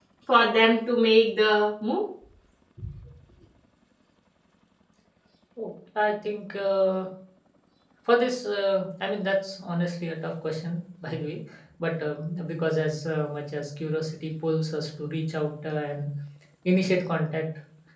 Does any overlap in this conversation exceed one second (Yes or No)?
No